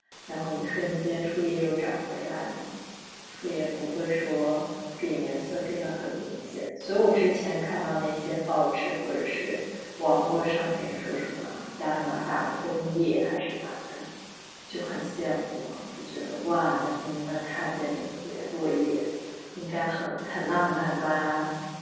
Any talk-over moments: No

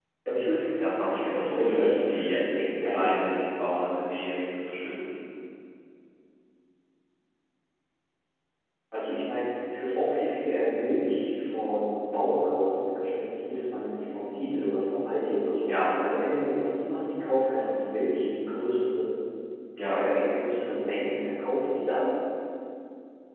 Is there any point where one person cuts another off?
Yes, from 1.1 s

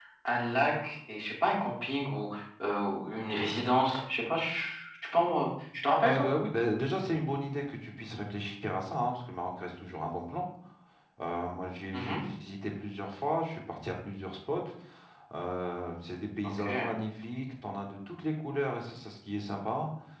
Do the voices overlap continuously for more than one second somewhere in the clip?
No

